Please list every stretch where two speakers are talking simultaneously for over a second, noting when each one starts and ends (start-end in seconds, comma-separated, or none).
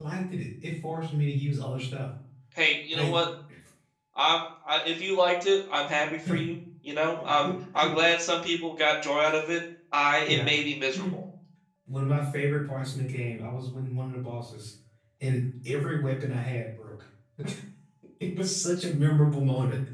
none